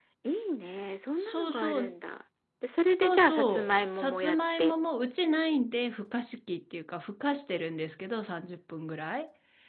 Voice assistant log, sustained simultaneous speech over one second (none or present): present